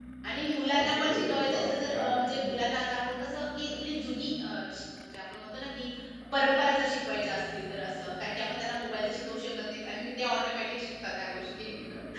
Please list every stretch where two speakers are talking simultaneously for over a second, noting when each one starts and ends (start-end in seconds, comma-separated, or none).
0.8-2.6